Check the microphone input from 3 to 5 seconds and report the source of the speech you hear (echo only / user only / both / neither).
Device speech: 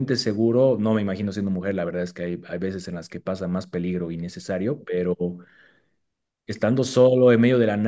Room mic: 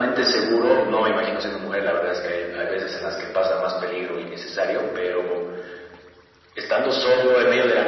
echo only